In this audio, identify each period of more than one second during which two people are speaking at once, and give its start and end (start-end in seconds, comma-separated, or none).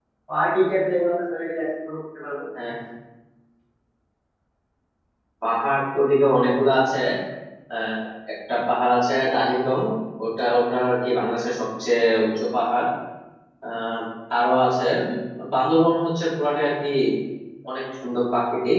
none